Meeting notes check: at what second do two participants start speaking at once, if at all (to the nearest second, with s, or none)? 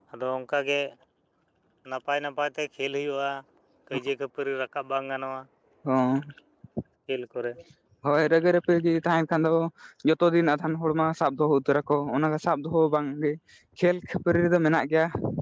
none